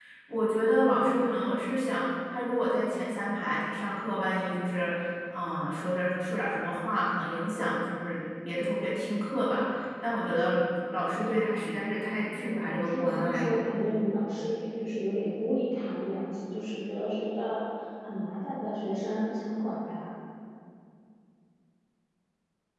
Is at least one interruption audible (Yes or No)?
Yes